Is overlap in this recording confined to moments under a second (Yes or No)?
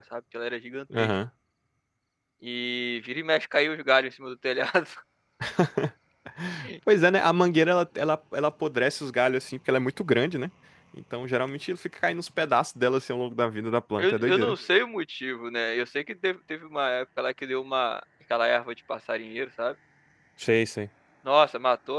Yes